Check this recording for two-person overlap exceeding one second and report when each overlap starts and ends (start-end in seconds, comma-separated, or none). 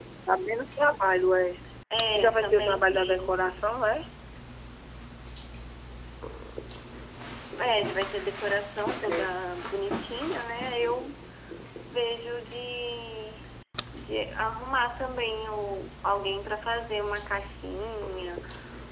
2.2-3.4